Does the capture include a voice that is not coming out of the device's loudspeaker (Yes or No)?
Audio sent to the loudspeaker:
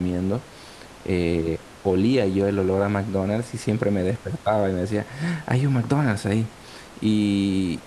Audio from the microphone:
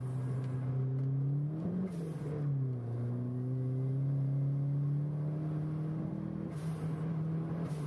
No